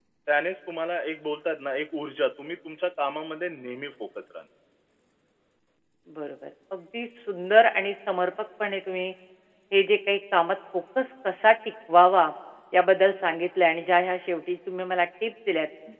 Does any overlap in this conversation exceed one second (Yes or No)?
No